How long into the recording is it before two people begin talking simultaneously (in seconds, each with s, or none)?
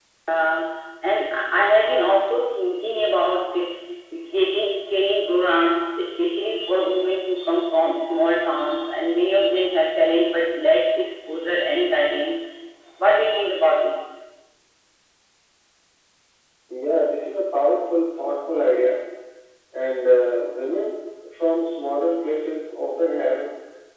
none